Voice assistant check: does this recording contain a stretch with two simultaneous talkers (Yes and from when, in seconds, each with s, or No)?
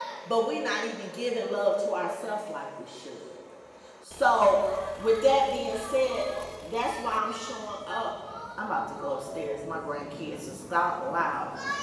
No